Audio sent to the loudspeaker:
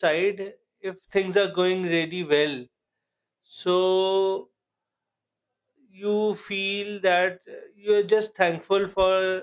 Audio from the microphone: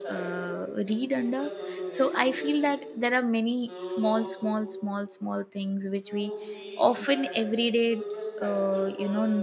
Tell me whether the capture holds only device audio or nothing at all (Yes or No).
No